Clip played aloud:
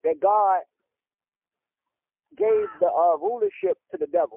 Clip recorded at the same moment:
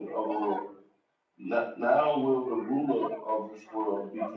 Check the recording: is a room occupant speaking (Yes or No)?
Yes